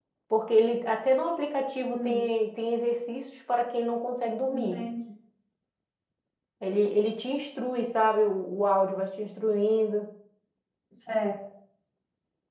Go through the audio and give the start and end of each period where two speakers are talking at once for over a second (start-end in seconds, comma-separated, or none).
none